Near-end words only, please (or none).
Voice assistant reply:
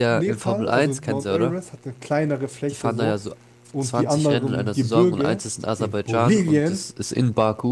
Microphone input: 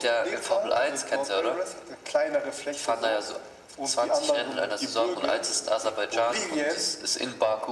none